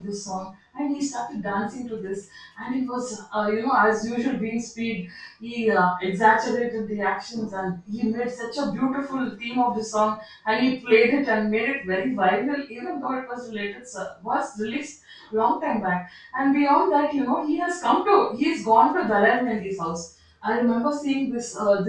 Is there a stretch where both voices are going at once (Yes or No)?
No